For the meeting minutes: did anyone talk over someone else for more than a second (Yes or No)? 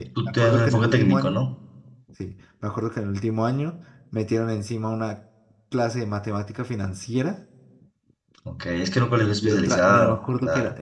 Yes